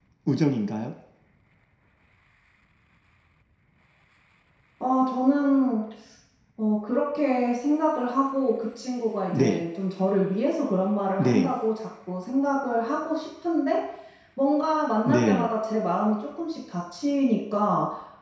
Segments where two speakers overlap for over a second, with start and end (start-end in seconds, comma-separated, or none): none